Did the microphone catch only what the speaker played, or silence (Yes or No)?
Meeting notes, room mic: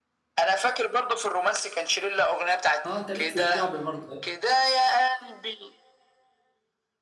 No